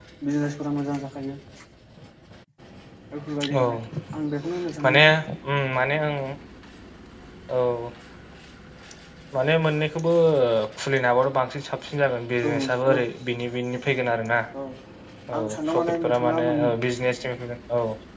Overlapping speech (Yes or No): Yes